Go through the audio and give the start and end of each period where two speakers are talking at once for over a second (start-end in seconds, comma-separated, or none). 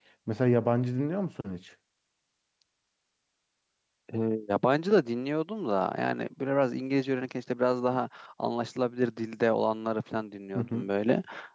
none